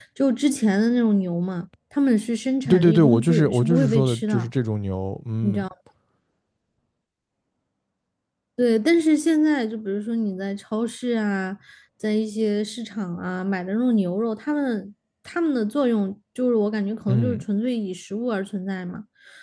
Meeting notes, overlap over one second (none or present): present